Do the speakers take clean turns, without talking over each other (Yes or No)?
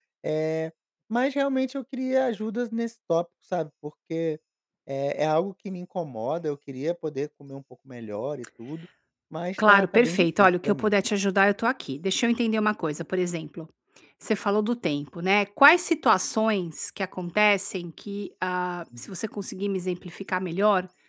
No